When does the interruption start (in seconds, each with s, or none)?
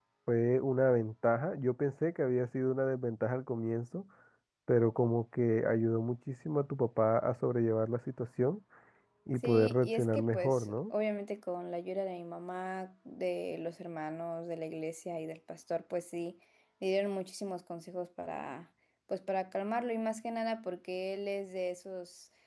9.4 s